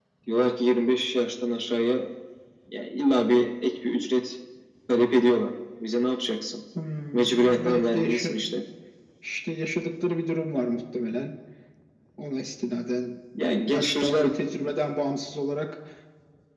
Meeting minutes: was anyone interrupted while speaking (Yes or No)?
Yes